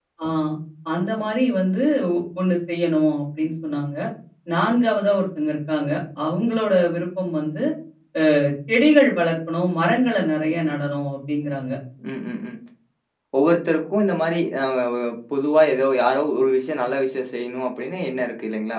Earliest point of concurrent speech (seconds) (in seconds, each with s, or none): none